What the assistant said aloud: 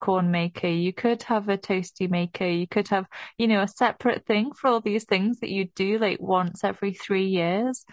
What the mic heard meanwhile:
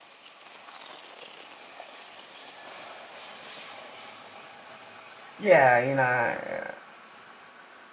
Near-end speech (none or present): present